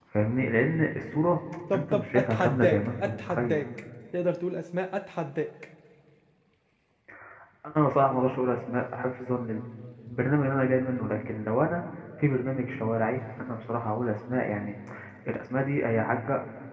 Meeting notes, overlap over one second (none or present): present